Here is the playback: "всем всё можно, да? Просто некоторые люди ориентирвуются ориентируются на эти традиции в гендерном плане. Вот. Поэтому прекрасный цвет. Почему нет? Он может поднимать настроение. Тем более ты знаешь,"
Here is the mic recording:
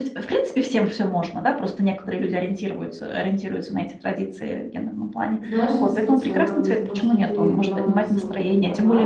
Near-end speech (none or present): present